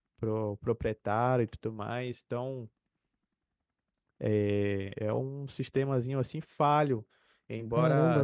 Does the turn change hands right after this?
Yes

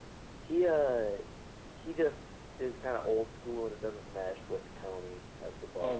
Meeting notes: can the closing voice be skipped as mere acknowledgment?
No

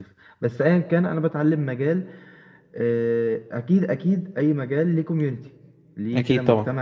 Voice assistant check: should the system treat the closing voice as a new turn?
No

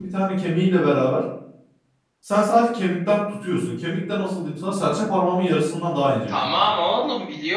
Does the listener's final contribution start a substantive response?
Yes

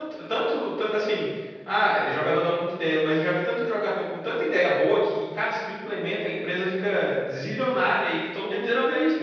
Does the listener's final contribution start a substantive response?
Yes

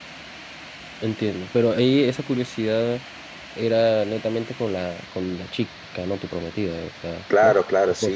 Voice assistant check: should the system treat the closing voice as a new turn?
Yes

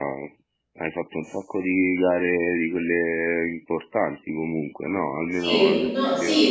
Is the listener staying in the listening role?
No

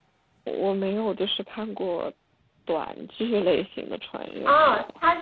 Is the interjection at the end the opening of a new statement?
Yes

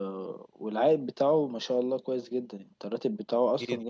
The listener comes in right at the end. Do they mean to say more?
Yes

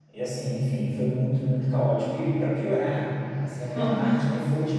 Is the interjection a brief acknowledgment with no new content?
Yes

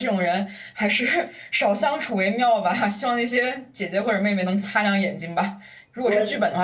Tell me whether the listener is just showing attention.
Yes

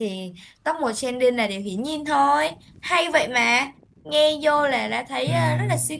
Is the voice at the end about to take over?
No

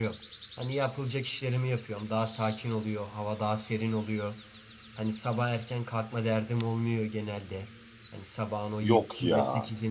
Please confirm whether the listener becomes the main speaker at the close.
No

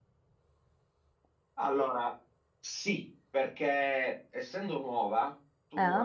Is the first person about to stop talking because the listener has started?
No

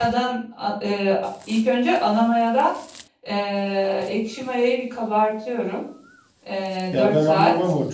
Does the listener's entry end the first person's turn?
Yes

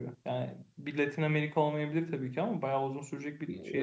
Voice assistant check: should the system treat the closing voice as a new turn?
Yes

